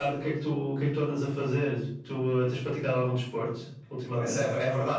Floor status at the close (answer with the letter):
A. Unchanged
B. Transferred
B